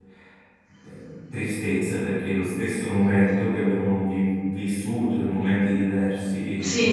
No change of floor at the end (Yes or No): No